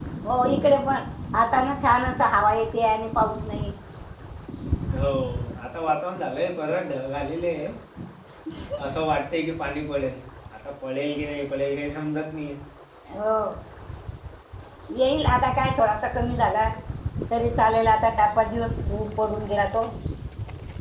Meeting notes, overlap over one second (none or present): none